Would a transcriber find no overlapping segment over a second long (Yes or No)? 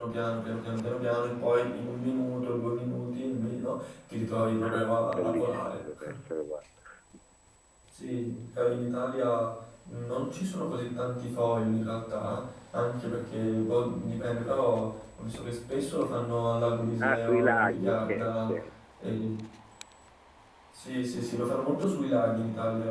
No